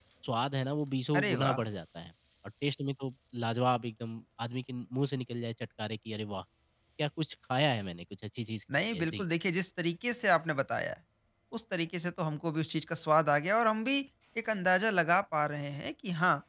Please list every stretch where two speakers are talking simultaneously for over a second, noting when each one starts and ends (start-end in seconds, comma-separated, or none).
none